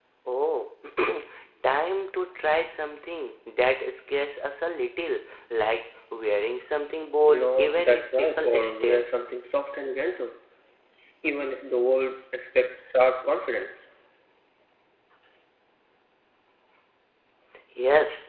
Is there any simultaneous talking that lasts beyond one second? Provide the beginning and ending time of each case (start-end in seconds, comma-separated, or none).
7.2-9.1